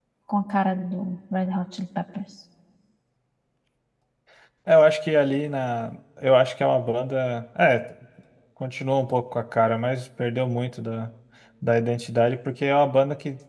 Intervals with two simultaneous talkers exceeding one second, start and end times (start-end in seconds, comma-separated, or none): none